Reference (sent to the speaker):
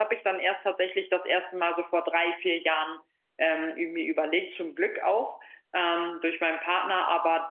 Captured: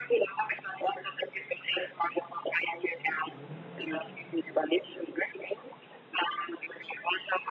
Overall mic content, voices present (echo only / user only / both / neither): echo only